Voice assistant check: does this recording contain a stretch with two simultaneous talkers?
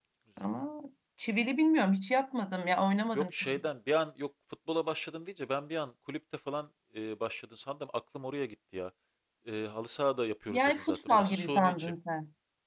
Yes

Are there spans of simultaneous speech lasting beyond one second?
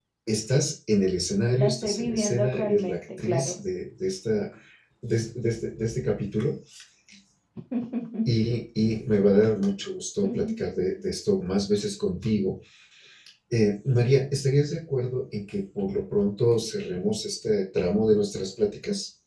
Yes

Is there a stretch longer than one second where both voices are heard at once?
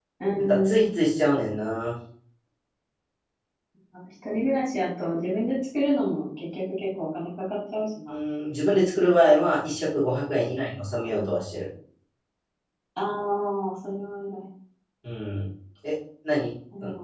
No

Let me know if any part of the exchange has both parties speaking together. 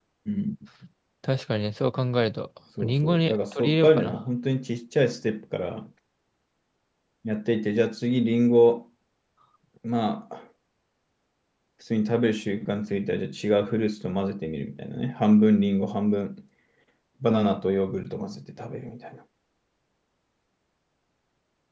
Yes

